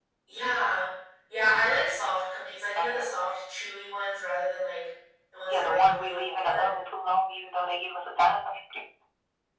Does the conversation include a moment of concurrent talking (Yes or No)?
Yes